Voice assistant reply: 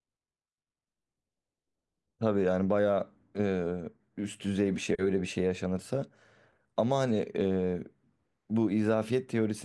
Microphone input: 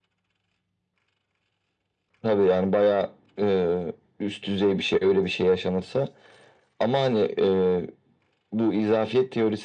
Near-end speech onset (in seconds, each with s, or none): none